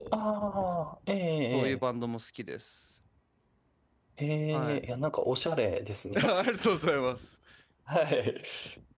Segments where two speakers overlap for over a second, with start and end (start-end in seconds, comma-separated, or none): none